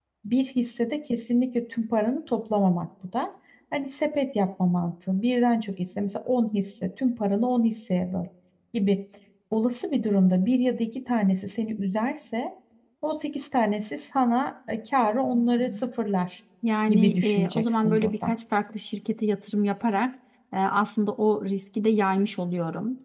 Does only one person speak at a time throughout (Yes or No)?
No